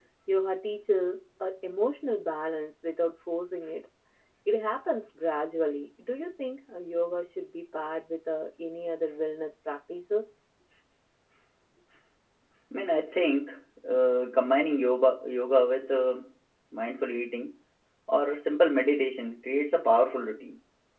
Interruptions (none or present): none